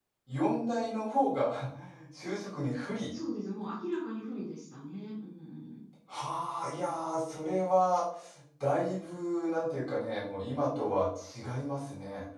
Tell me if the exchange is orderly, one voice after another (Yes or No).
Yes